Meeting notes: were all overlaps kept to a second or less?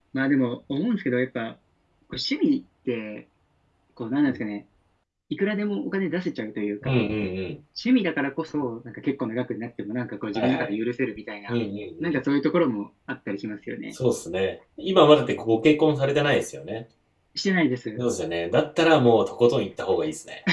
Yes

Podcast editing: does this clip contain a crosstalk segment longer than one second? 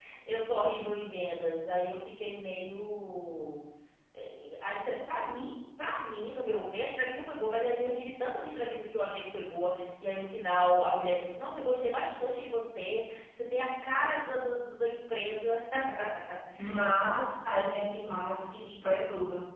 No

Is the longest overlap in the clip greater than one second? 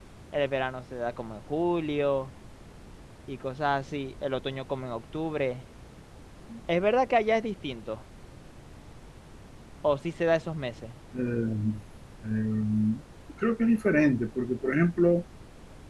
No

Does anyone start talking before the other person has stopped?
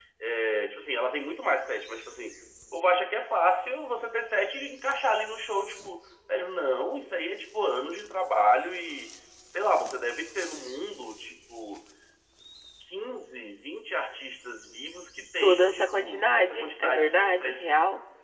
Yes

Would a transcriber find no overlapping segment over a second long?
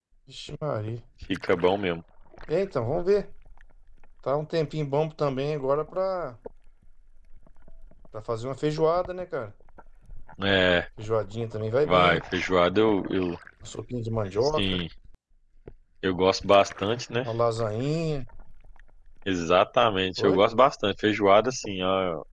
Yes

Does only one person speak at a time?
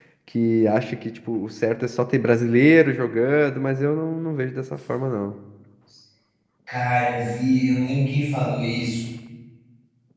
Yes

